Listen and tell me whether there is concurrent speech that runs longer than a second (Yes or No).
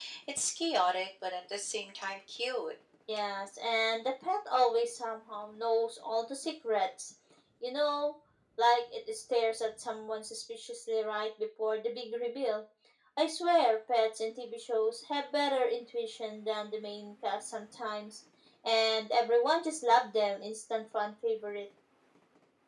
No